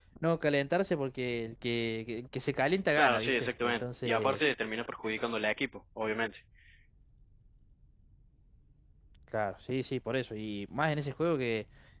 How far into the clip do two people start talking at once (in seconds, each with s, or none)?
3.0 s